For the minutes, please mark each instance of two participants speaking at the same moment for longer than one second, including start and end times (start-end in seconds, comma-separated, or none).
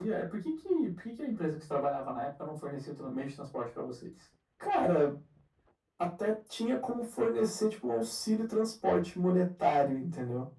none